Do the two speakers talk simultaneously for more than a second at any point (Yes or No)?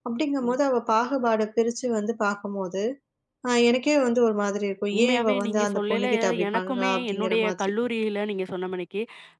Yes